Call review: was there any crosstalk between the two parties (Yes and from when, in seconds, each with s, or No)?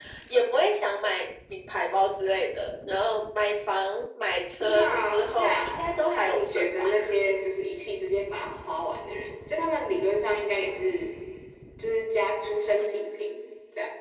Yes, from 4.7 s